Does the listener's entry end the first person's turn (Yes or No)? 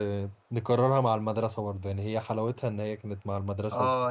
Yes